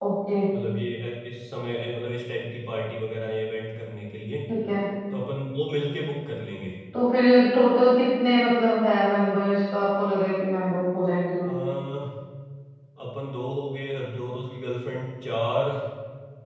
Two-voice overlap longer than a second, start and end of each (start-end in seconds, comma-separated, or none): none